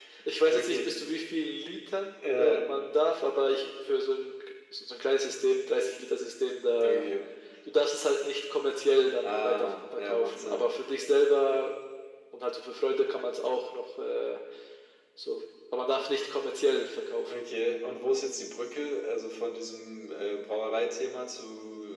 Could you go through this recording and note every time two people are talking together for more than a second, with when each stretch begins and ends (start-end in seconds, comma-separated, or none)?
9.2-10.7